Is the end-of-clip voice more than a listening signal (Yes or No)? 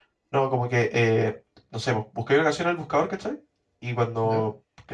No